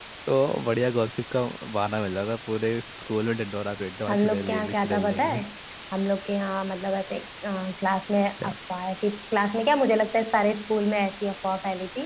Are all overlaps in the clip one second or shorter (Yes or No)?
No